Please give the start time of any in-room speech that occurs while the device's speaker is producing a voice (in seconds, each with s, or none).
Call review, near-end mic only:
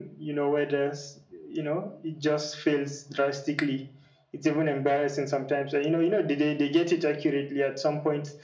none